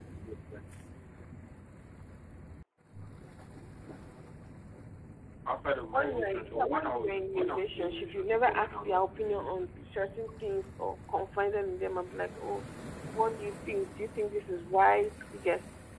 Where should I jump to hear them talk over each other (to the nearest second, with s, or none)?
6 s